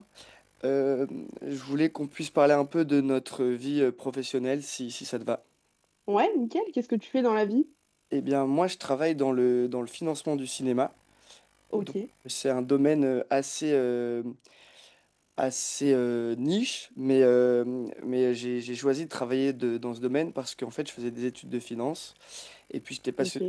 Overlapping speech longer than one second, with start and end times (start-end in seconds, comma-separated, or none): none